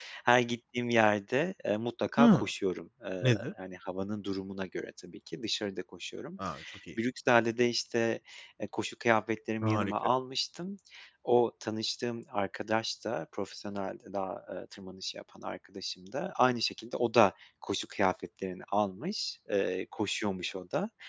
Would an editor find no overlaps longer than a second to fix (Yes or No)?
Yes